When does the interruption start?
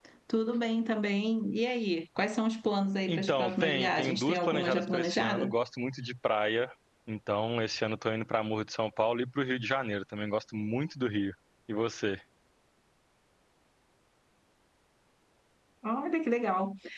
3.1 s

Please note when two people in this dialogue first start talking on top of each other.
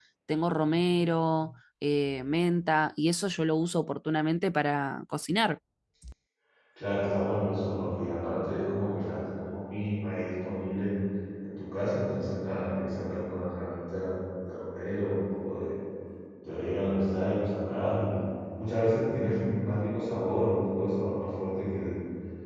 none

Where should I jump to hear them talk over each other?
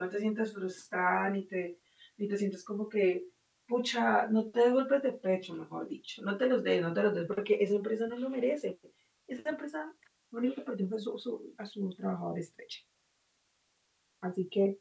none

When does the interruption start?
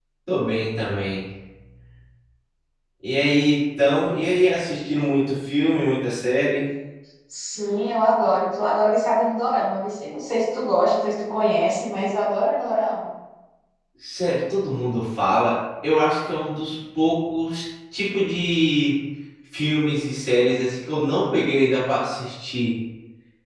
none

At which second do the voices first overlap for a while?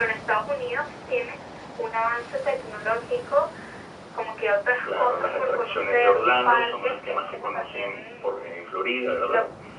4.8 s

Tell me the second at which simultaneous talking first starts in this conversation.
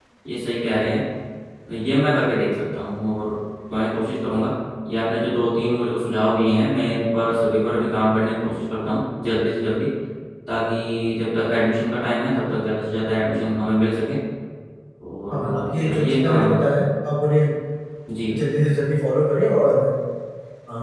15.3 s

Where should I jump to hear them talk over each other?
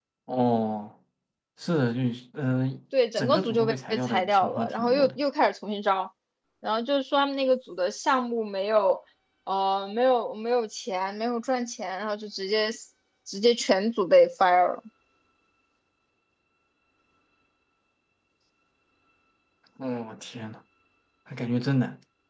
3.2 s

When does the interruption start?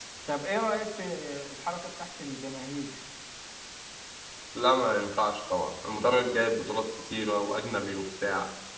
none

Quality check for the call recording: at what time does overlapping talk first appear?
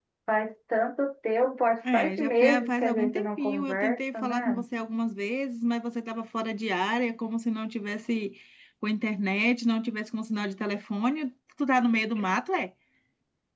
1.8 s

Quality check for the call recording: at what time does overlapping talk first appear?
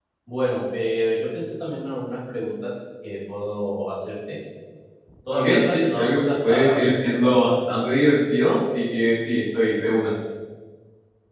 5.3 s

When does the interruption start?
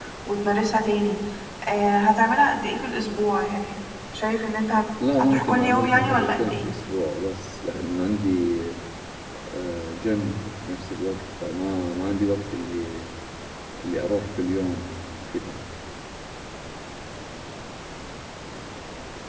5.0 s

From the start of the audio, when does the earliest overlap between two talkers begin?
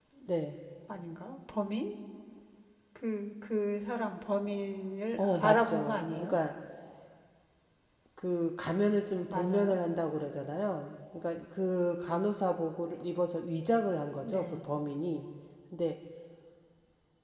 5.2 s

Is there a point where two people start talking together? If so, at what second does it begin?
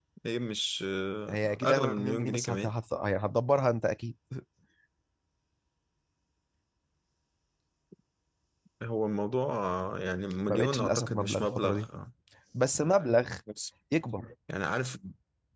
1.3 s

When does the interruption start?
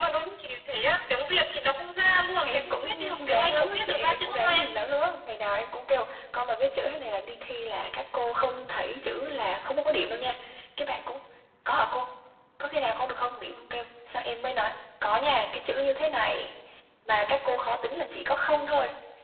2.4 s

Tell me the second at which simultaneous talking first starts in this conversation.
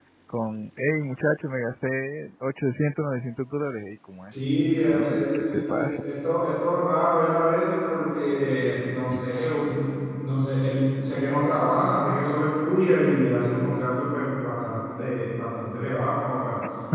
4.3 s

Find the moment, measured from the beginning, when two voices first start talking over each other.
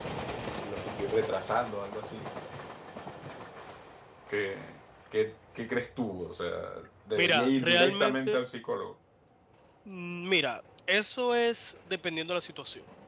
7.2 s

